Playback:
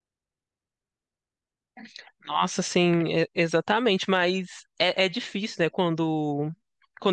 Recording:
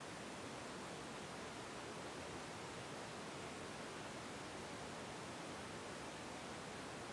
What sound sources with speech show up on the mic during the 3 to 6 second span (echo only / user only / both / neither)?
neither